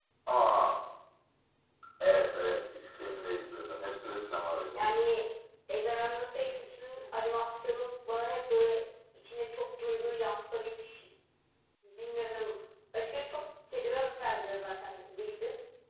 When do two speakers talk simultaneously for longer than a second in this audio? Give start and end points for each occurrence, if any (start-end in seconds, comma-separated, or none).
none